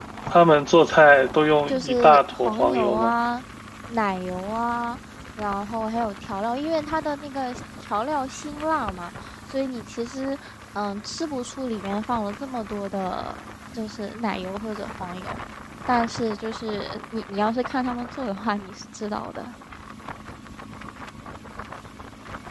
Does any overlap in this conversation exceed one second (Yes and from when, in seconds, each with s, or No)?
Yes, from 1.7 s